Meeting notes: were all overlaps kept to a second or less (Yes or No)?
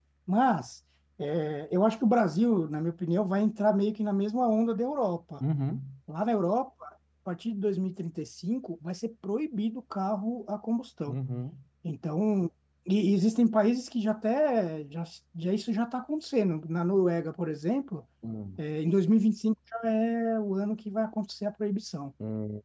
Yes